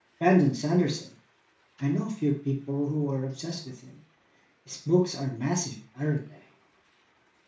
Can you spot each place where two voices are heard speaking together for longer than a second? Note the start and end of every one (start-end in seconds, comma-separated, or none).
none